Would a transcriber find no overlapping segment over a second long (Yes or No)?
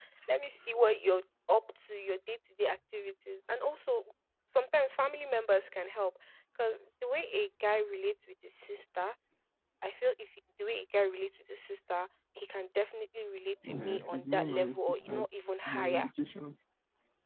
No